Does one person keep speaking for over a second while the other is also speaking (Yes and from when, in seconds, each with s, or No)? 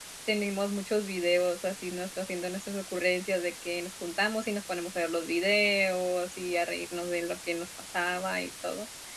No